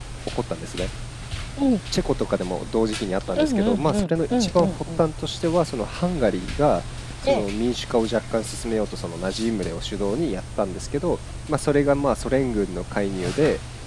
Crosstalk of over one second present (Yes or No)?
Yes